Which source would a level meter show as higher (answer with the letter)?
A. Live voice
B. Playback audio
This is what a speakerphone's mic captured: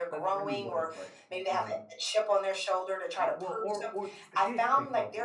B